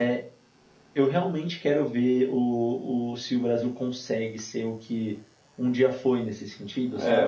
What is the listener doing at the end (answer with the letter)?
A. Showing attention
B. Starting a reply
B